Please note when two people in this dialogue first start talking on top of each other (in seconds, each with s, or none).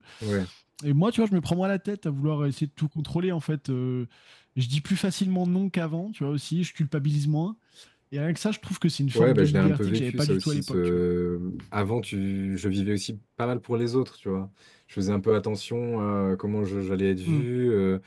9.1 s